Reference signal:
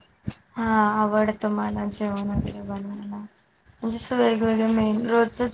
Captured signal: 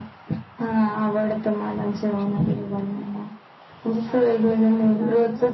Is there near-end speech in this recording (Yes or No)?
Yes